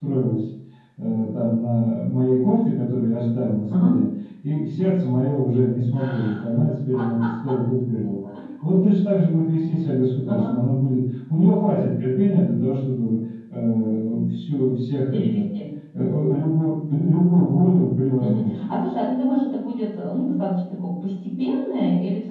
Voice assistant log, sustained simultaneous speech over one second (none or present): none